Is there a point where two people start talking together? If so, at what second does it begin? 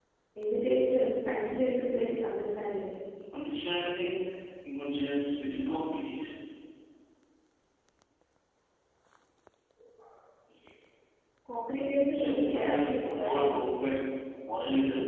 12 s

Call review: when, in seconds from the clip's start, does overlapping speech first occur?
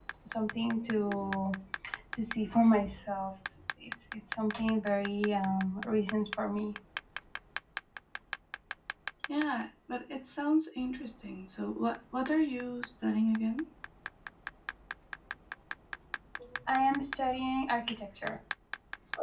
none

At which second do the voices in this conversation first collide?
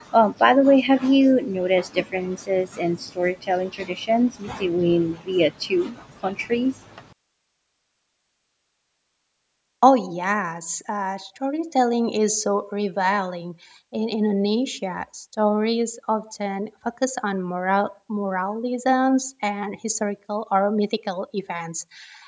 none

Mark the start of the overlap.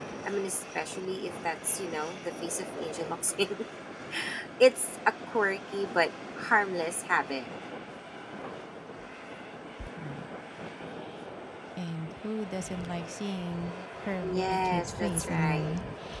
14 s

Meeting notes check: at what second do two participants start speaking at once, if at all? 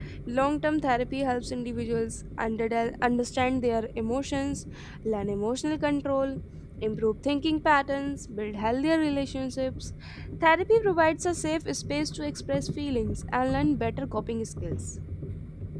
none

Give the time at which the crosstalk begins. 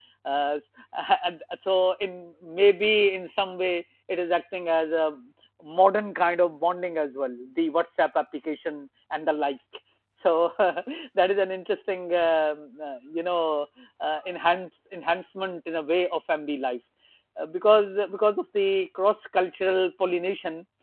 none

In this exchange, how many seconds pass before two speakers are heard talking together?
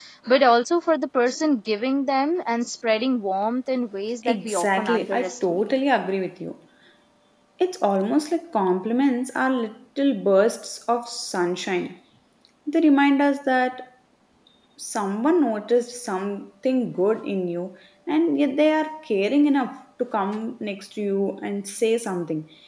4 s

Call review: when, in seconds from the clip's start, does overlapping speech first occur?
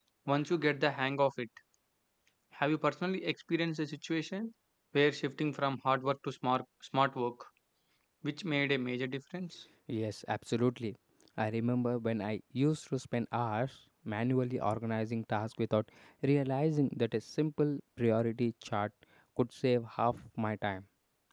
none

